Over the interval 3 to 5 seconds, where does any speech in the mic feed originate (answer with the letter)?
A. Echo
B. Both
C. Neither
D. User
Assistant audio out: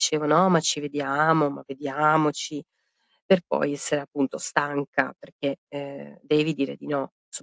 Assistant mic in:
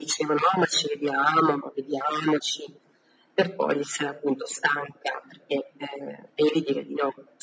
A